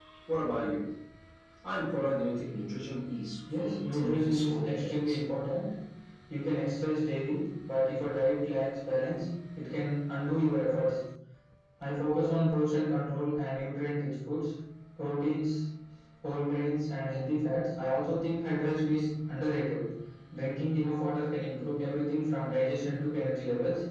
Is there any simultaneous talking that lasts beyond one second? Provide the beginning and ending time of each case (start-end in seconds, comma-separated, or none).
3.6-5.2